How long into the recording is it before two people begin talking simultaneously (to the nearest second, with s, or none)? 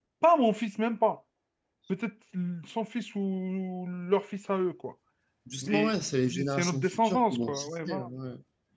6 s